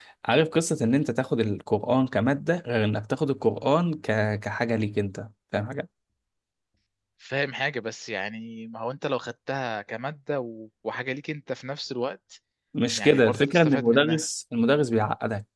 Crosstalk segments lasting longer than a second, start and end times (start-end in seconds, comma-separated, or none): 13.0-14.2